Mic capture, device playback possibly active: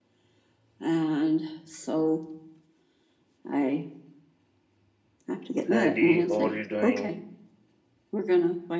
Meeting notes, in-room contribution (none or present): present